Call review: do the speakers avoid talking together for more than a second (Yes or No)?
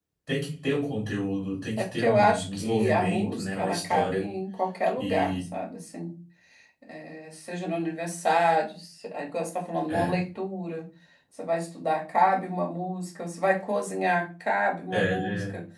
No